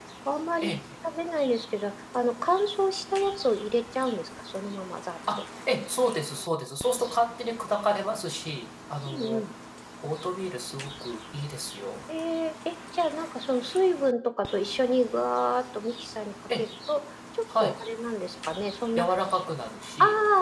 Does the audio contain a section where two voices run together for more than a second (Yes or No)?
No